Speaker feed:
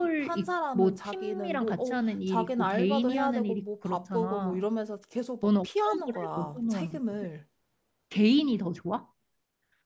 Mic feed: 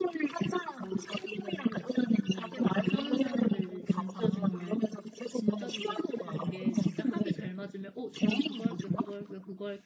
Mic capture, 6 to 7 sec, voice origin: both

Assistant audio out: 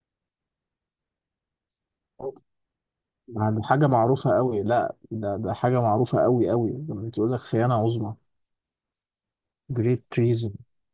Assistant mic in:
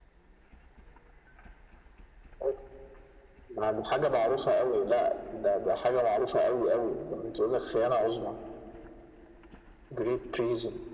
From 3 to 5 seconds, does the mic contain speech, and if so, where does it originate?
echo only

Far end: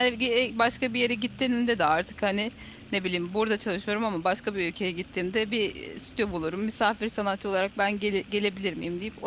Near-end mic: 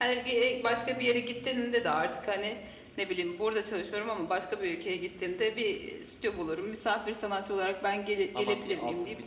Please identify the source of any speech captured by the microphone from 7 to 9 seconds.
both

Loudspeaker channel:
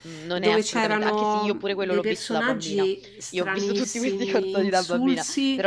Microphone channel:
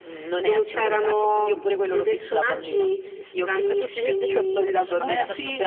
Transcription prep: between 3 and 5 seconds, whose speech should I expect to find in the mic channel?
both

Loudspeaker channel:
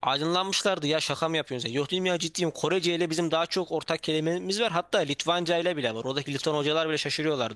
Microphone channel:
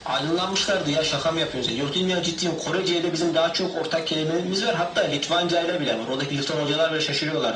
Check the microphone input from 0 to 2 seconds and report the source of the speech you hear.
echo only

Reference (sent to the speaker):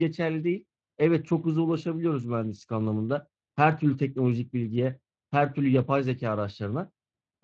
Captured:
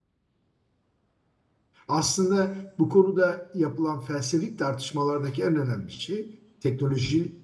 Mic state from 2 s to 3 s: user only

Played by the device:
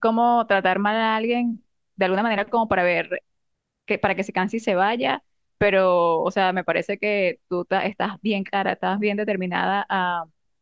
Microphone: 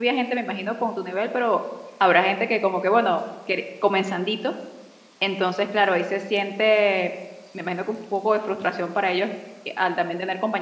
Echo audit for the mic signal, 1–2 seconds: user only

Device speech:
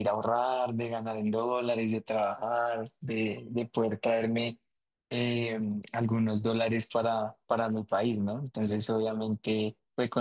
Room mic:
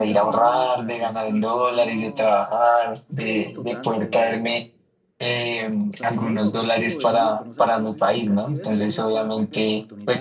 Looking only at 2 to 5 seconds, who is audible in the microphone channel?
both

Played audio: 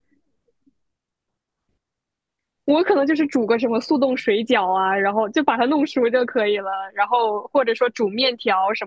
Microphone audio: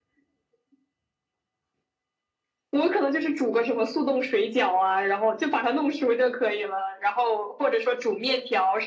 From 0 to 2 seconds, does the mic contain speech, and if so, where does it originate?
neither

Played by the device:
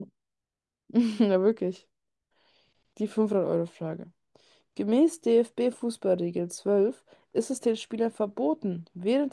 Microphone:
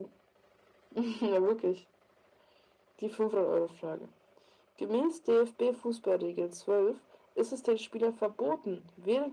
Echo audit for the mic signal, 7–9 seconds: echo only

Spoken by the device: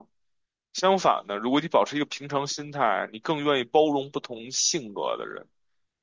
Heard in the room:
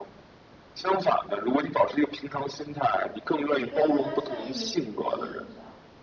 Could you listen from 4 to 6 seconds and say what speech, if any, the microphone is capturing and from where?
both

